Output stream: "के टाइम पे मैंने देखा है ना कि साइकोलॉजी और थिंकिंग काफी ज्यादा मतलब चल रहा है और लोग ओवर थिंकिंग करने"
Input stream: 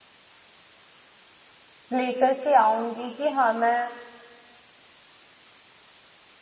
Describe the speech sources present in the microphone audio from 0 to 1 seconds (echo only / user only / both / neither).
neither